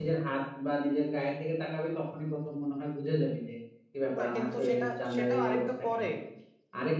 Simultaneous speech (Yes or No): Yes